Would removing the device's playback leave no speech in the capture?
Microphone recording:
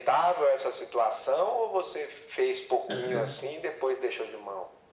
No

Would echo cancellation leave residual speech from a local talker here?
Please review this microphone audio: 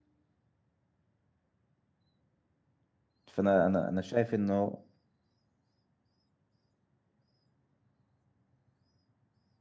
Yes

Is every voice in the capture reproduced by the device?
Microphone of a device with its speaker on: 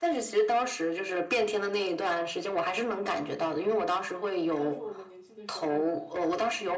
No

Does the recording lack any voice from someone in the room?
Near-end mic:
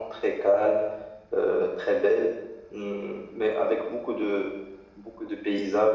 Yes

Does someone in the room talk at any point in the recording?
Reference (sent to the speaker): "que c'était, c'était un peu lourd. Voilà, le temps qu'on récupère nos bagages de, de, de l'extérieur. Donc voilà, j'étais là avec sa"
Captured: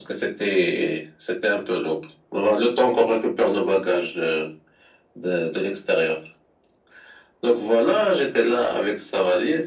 No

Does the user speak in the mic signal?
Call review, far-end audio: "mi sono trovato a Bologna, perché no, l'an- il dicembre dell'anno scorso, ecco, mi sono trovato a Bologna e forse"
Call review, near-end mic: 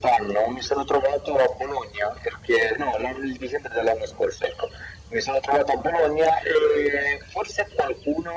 No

